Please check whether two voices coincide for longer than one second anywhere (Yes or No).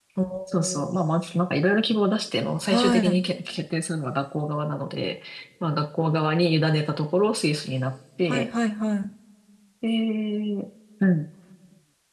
No